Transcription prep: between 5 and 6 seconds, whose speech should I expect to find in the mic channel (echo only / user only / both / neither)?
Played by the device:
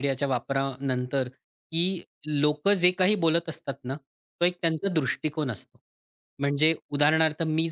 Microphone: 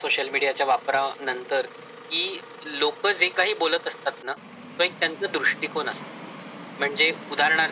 echo only